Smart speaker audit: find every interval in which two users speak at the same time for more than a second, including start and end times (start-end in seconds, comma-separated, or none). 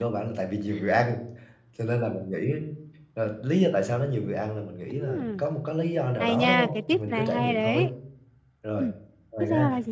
6.2-7.9